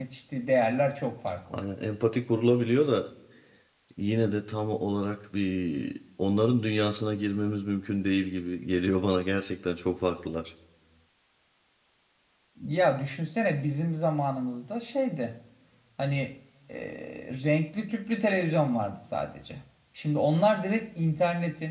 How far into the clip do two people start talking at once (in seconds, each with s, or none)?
none